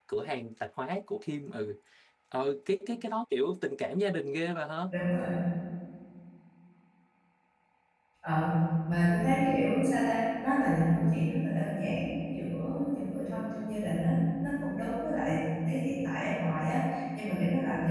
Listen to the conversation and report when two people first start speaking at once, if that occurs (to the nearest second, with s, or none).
none